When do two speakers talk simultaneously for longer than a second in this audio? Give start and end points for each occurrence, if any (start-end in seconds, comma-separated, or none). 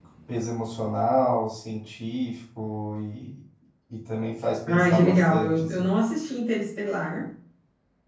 4.7-5.9